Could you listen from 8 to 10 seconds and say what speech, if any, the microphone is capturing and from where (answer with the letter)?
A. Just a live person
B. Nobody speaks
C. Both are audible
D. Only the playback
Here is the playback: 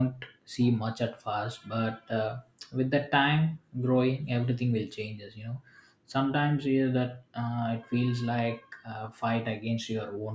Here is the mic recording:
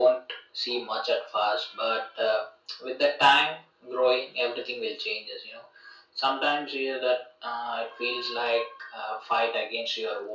D